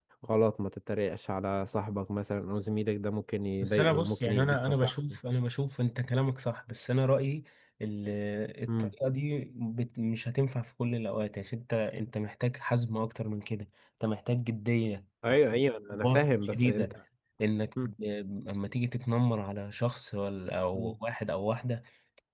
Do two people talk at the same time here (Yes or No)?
Yes